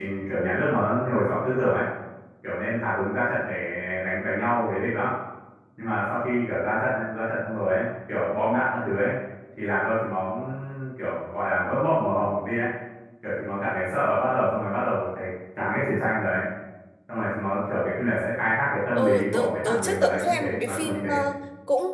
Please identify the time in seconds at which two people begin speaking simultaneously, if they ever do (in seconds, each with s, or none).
19.0 s